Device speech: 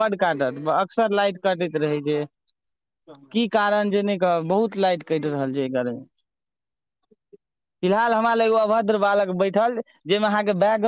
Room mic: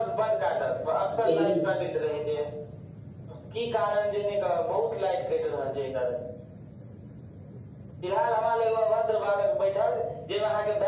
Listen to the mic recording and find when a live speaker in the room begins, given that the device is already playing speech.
1.2 s

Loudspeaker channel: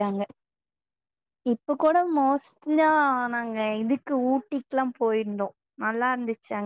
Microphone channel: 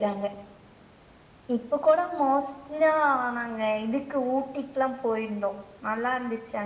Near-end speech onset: none

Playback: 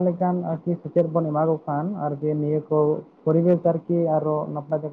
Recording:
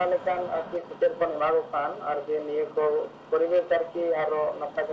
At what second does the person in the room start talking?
none

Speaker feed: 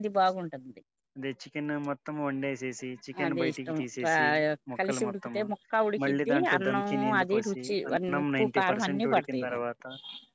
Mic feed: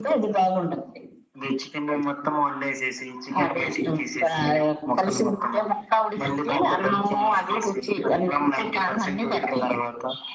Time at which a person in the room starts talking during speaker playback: none

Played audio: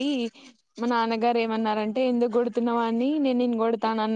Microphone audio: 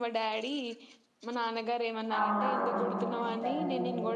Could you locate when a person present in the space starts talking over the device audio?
2.2 s

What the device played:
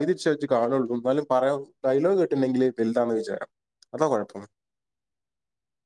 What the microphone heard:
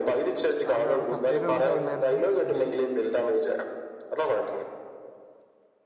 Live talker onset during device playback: 0.7 s

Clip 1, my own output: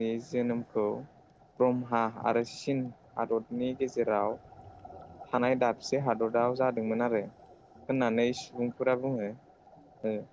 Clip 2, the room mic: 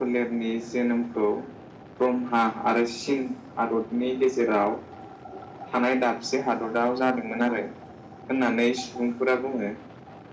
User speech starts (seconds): none

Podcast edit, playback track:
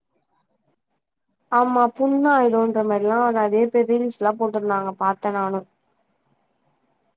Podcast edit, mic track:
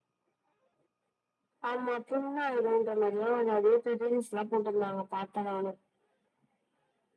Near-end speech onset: none

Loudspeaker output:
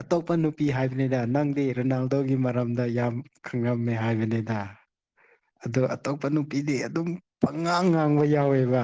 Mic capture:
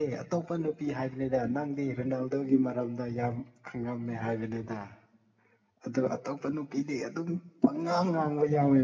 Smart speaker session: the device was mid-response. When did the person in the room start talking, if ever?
none

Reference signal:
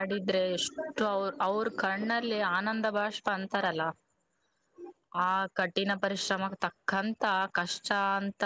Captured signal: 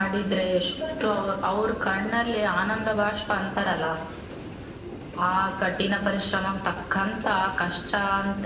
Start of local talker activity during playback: none

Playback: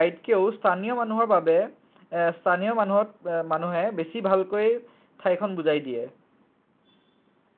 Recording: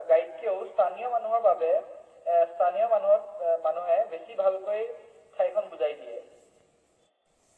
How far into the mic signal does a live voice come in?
none

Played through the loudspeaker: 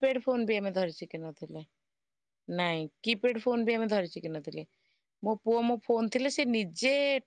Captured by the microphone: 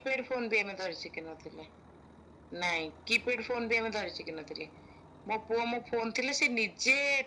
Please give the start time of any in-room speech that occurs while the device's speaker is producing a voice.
none

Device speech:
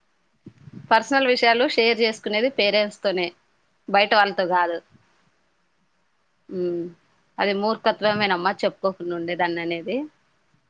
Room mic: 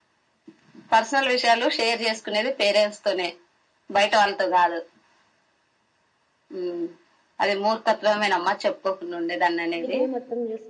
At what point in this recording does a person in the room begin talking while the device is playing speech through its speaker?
9.8 s

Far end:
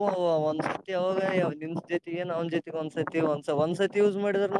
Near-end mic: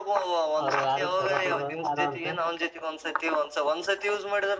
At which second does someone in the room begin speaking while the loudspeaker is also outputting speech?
0.6 s

